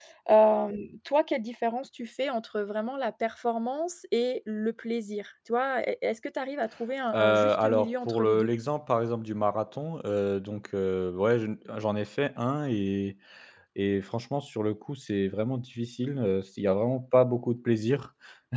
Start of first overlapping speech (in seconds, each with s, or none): 7.1 s